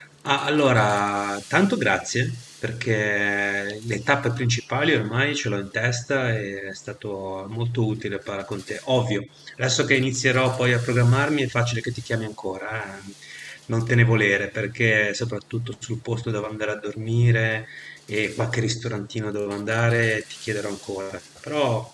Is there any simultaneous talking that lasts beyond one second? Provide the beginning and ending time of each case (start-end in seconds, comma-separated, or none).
none